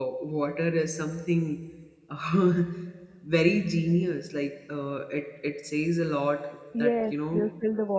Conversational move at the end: taking over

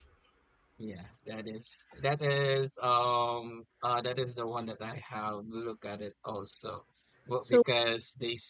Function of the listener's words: listening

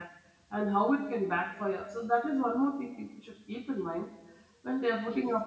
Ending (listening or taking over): listening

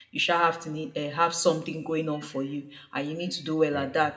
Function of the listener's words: listening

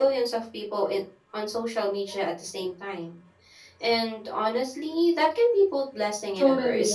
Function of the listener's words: taking over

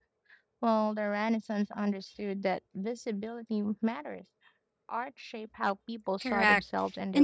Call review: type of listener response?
taking over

